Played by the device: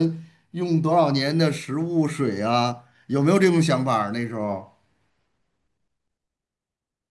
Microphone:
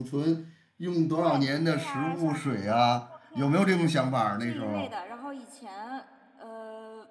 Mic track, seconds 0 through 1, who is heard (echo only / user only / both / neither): echo only